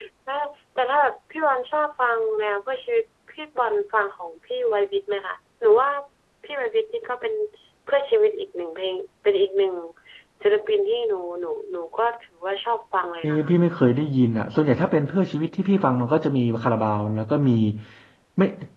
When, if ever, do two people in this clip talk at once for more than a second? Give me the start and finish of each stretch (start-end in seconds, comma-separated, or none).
none